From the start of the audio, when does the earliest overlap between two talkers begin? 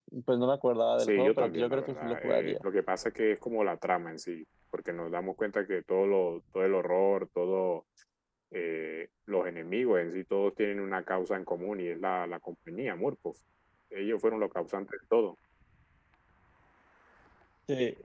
1 s

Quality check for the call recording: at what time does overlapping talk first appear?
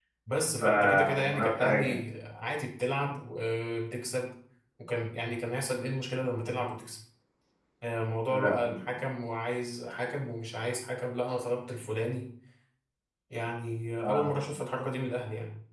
1 s

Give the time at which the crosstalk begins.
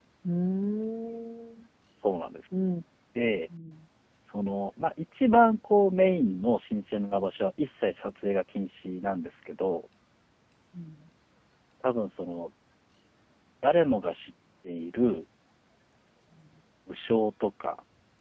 none

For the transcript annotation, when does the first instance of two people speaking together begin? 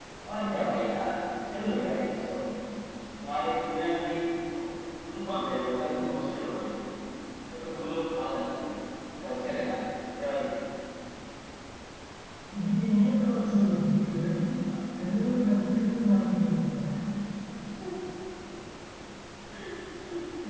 none

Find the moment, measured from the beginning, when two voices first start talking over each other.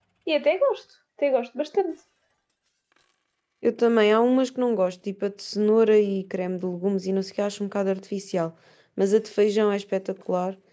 none

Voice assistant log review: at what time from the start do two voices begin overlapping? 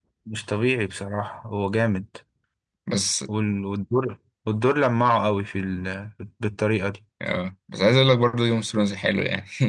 none

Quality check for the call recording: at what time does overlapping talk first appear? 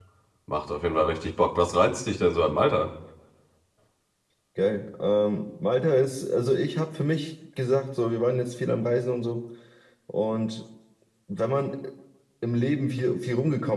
none

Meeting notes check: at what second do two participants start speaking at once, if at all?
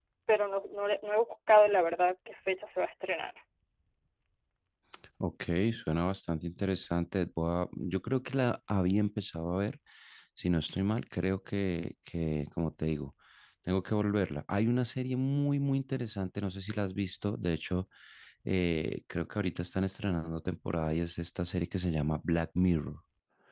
none

